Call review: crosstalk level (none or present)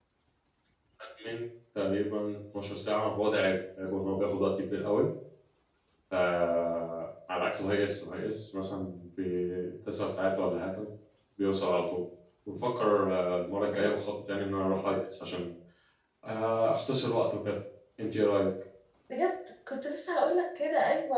none